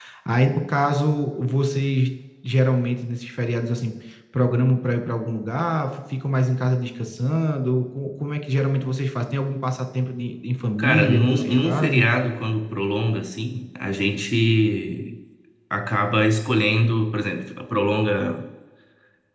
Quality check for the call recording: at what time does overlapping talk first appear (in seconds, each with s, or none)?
10.8 s